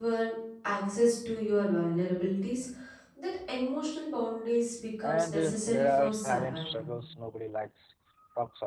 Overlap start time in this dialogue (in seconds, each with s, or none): 5.0 s